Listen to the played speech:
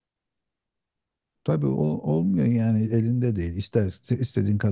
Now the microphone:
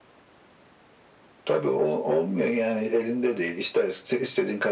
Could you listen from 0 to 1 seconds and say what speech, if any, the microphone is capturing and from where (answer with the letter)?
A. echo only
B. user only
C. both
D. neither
D